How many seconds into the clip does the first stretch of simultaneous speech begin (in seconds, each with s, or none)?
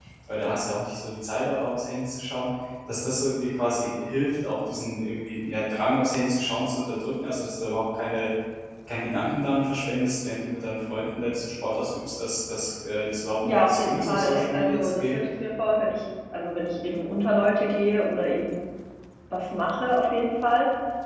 13.4 s